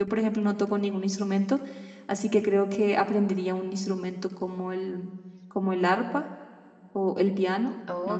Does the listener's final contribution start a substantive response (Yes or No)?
Yes